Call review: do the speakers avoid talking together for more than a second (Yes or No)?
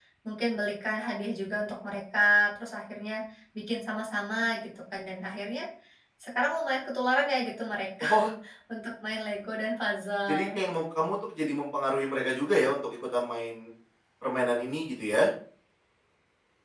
Yes